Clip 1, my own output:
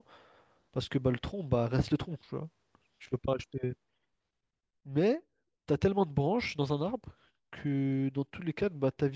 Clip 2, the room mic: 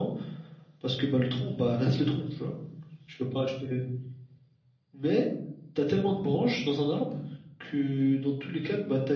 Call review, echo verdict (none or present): present